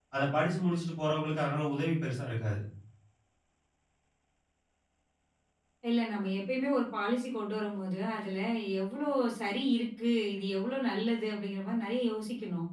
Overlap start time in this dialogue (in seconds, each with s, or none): none